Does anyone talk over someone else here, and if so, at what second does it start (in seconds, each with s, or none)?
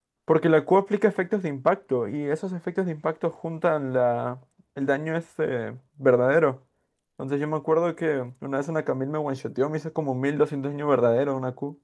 none